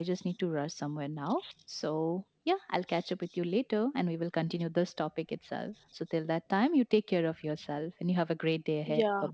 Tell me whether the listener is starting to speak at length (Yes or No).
Yes